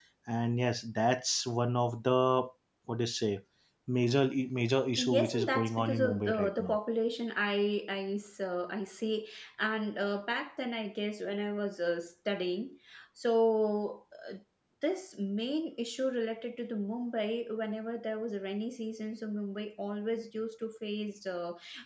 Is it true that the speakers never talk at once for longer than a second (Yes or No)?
No